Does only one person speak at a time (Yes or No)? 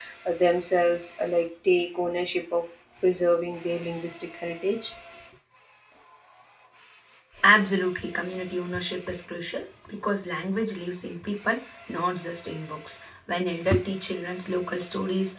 Yes